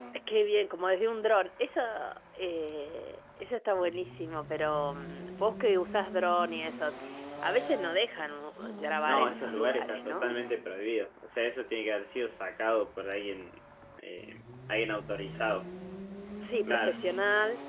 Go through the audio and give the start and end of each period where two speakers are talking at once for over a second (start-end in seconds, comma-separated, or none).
9.0-10.4